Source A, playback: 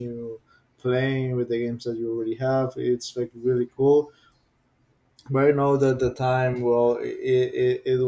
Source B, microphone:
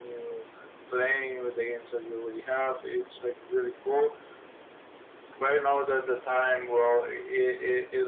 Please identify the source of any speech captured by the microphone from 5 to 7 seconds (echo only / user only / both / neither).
echo only